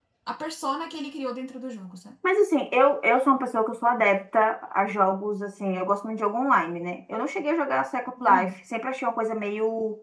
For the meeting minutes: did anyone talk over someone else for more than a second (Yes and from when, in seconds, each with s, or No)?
No